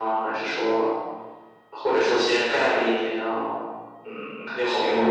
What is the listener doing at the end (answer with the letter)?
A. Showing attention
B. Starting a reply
B